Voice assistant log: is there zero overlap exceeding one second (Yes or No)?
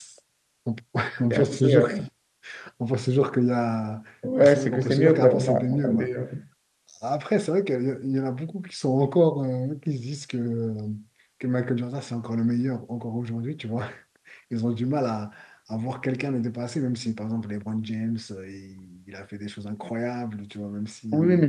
No